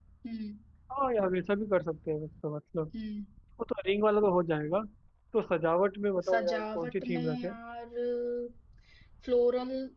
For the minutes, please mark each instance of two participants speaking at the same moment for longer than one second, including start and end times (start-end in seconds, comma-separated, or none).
6.3-7.5